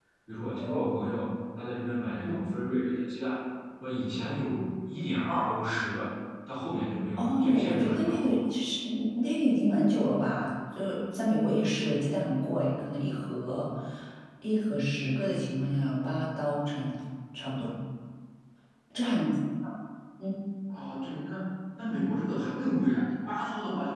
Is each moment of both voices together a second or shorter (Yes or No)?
No